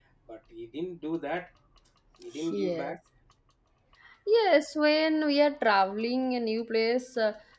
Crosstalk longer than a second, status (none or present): none